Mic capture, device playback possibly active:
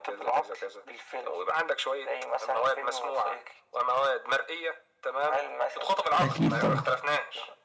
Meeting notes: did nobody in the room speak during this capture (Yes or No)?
No